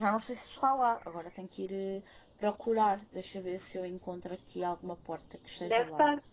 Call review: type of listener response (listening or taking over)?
taking over